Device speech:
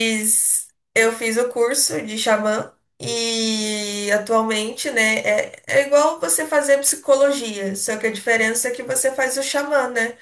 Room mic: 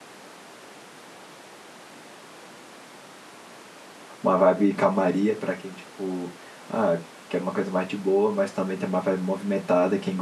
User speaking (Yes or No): Yes